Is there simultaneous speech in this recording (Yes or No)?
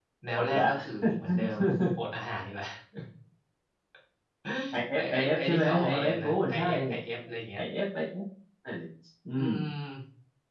Yes